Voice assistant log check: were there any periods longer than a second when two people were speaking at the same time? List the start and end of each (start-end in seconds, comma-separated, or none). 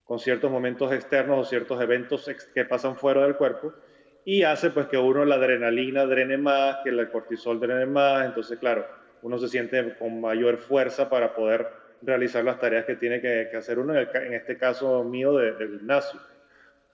none